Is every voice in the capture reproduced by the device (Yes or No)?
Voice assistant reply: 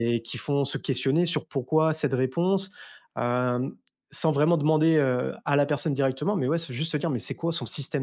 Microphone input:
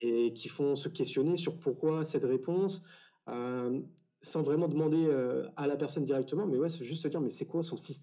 Yes